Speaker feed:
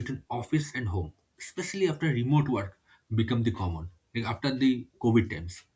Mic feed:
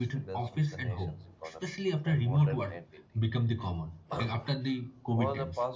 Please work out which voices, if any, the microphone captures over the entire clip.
both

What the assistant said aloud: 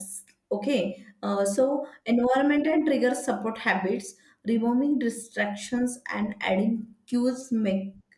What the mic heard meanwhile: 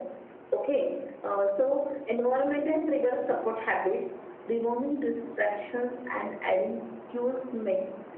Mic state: echo only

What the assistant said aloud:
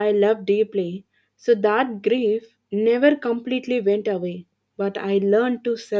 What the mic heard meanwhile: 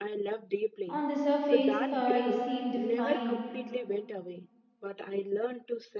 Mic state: both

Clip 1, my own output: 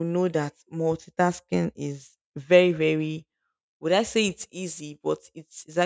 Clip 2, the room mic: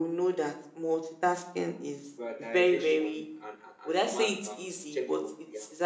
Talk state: both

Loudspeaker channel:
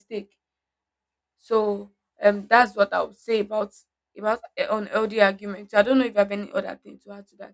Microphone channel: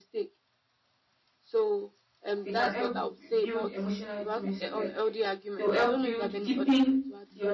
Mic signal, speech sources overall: both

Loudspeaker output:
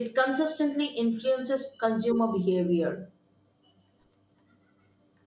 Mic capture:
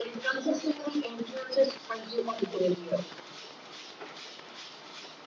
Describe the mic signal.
echo only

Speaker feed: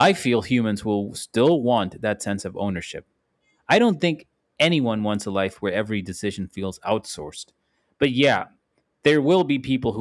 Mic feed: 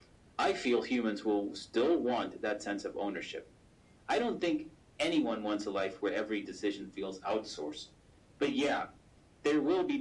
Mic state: echo only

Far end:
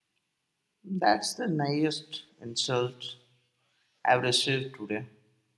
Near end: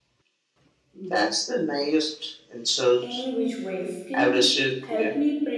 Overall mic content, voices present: both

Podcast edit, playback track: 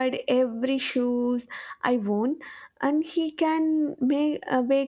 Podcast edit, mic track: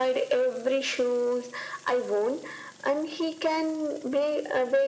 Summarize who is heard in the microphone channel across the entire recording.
echo only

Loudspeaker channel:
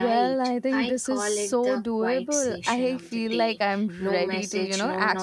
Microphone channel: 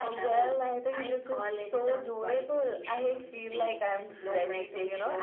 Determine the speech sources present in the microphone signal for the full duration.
echo only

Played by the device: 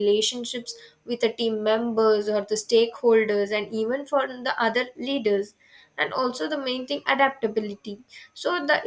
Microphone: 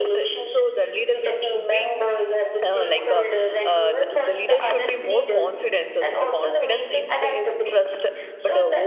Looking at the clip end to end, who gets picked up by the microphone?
both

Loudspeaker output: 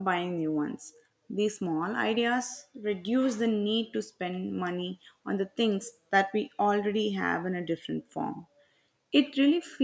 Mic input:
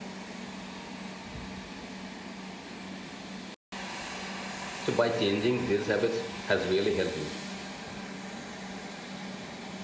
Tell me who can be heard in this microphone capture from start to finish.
user only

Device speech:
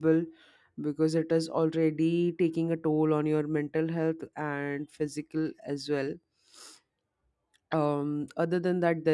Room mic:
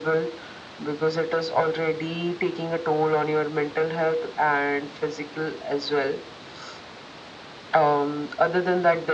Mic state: echo only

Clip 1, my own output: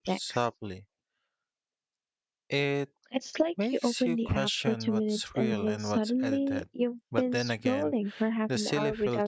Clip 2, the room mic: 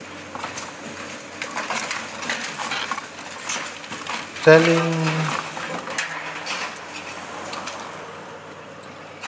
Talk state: user only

